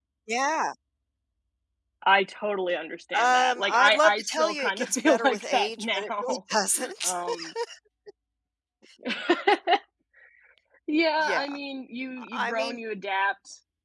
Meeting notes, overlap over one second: present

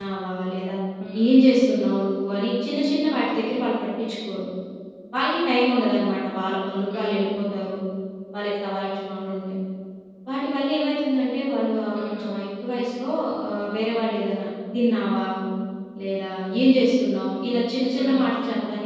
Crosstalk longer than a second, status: none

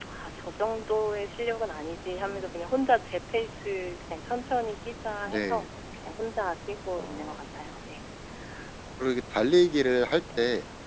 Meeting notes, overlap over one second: none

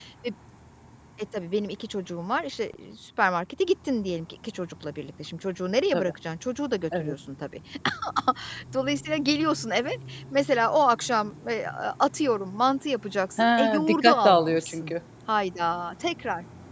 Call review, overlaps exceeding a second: present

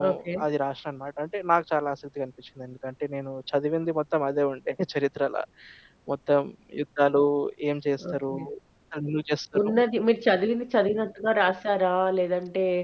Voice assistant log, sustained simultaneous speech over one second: none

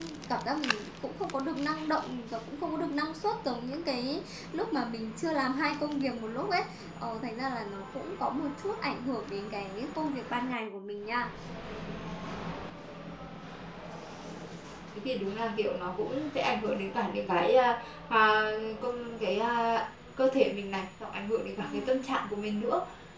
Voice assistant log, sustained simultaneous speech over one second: none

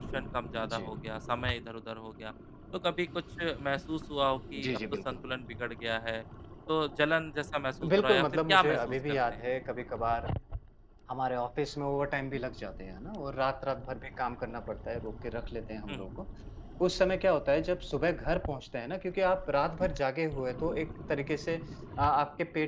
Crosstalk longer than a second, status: present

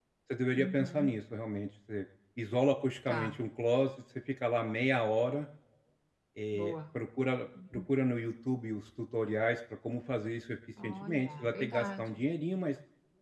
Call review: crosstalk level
present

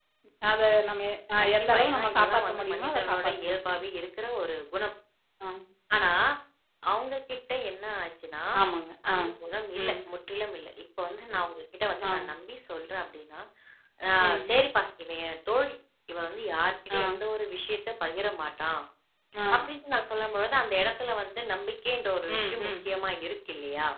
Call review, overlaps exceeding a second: present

